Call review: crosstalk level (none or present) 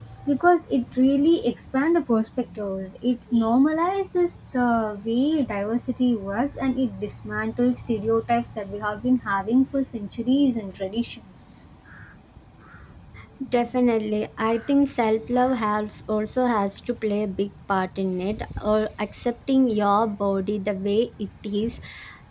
none